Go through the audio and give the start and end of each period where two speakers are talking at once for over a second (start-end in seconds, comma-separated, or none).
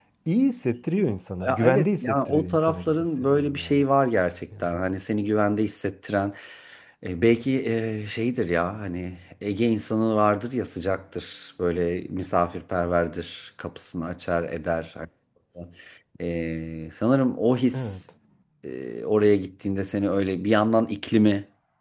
1.4-3.8